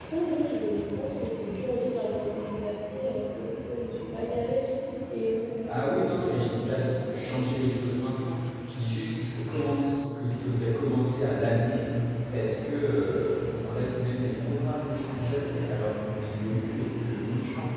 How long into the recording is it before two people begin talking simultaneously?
6 s

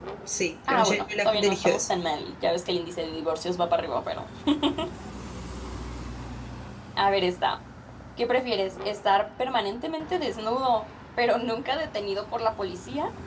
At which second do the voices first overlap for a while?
1 s

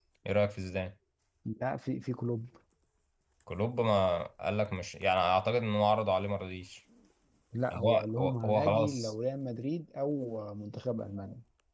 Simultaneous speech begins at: 8 s

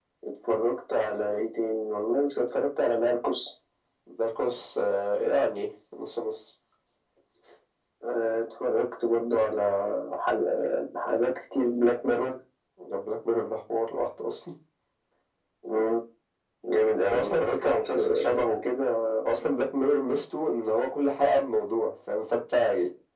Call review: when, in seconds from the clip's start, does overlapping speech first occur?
17 s

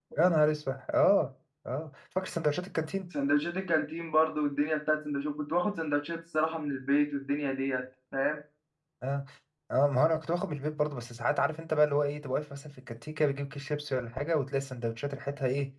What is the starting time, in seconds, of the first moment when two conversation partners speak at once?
none

